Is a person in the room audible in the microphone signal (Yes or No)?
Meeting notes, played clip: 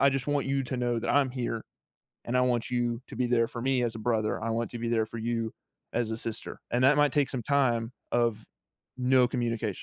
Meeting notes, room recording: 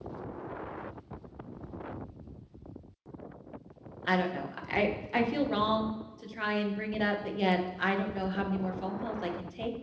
Yes